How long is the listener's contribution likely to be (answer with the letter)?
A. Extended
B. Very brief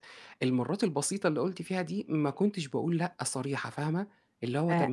A